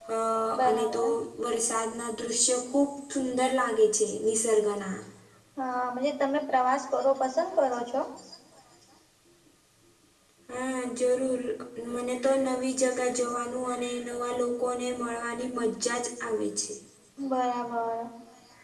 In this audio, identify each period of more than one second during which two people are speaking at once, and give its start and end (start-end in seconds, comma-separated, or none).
none